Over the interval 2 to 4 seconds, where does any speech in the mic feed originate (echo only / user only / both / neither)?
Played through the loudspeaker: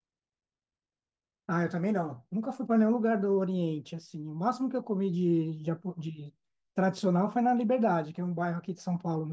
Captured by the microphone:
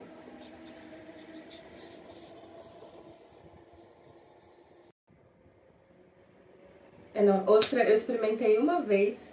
neither